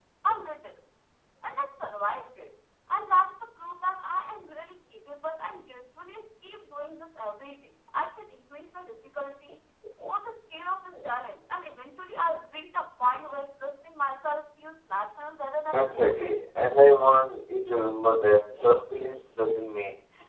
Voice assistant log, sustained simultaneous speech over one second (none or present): none